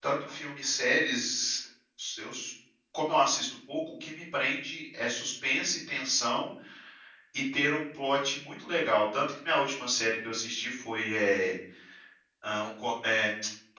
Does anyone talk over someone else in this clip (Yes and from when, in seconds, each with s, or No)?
No